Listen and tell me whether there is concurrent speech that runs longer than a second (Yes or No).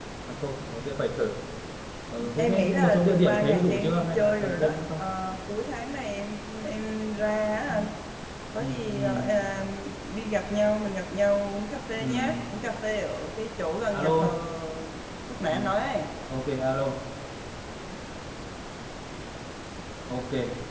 Yes